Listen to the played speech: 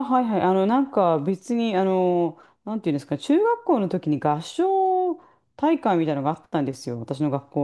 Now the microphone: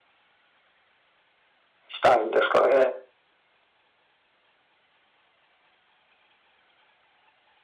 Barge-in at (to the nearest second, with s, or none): 2 s